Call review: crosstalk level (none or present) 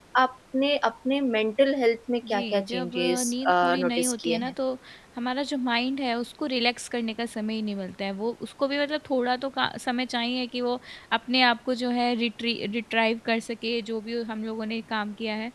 present